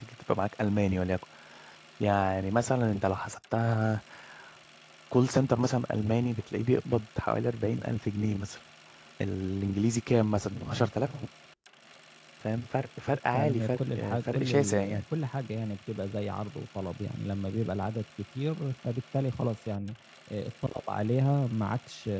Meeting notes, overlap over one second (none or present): present